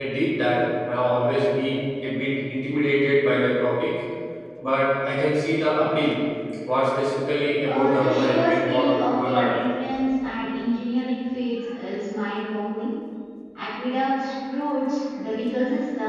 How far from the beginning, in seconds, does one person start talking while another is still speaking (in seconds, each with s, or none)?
7.6 s